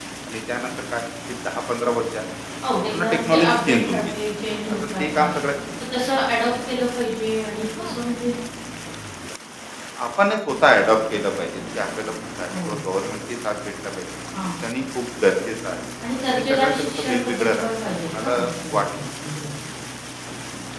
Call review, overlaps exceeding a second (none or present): present